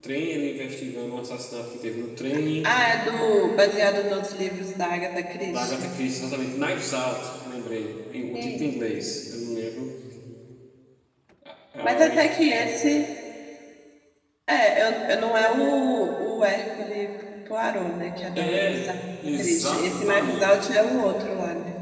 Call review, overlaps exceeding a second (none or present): present